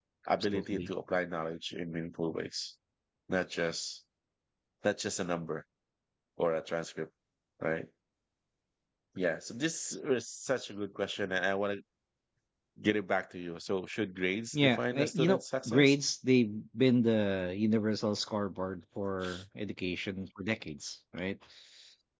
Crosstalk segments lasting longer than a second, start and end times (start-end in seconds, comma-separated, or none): 14.5-15.9